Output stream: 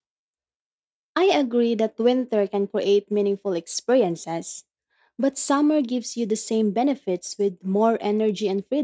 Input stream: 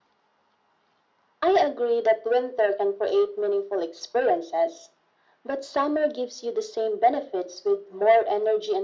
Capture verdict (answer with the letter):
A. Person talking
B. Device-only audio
B